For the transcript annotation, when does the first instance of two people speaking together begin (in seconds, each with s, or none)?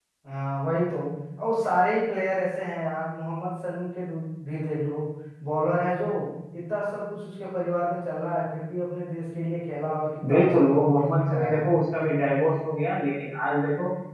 10.2 s